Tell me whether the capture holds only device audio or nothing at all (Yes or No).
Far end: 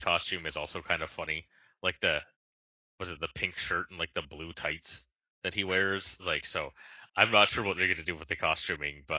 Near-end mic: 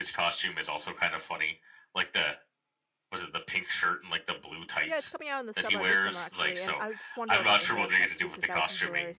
No